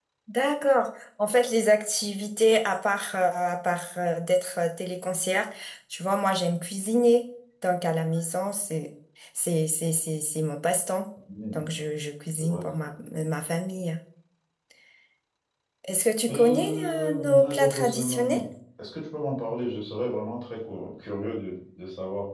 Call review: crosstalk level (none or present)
present